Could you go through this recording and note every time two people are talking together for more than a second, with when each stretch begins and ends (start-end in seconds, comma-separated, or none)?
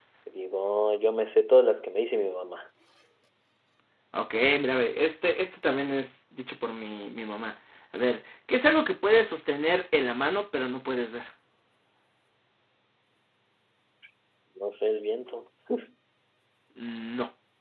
none